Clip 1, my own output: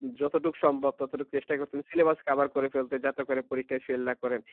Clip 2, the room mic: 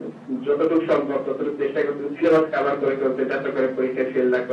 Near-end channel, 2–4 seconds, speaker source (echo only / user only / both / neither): echo only